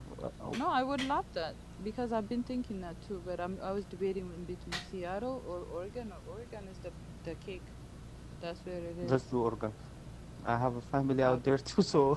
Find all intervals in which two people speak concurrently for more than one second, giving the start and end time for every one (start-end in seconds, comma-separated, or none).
none